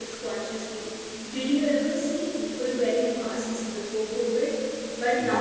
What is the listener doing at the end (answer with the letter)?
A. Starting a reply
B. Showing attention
B